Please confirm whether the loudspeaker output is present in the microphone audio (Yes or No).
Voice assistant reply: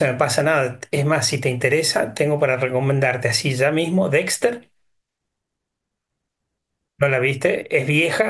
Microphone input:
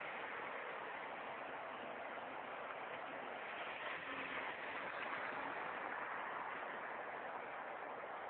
No